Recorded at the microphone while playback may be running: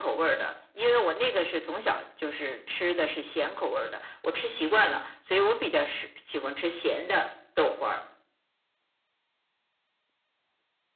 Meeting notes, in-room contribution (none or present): none